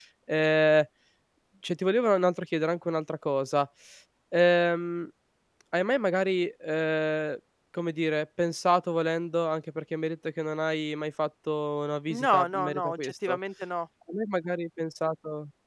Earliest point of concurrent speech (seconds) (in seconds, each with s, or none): 12.1 s